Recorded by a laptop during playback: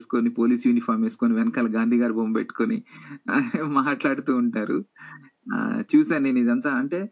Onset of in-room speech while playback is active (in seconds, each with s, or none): none